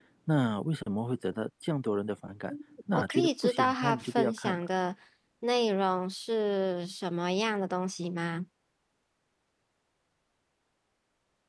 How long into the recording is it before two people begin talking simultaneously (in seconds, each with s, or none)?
2.9 s